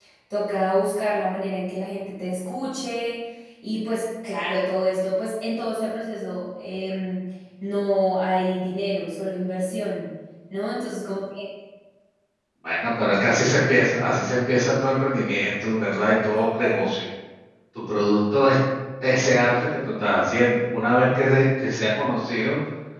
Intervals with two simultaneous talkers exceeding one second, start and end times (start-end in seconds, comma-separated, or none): none